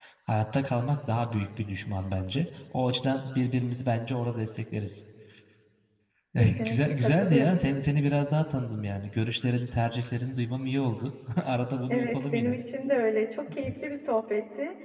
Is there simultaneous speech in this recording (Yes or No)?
Yes